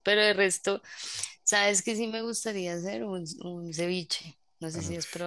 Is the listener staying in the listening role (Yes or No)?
No